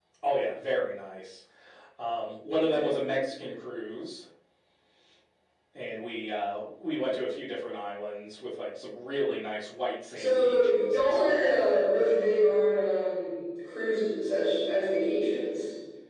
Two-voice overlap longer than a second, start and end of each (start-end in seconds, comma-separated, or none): 10.2-11.6